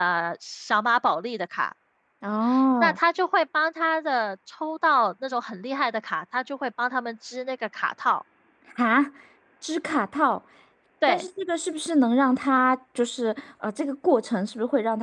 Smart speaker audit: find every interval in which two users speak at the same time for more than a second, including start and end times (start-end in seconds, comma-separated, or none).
none